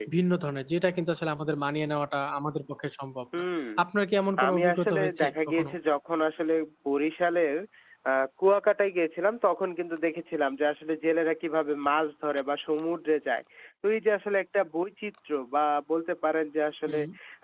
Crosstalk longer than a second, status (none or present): present